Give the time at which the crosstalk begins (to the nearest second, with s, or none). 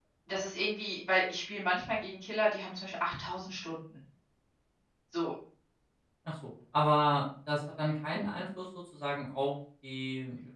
none